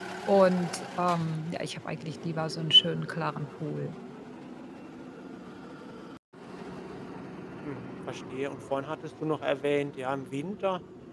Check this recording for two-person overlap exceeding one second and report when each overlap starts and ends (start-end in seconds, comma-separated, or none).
none